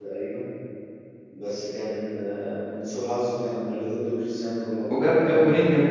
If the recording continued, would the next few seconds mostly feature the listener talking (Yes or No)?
Yes